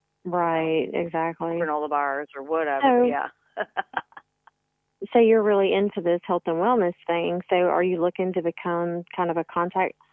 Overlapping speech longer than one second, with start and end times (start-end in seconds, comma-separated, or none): none